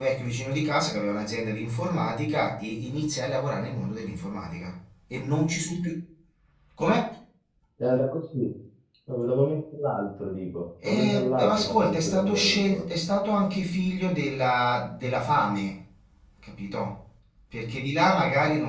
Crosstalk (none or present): present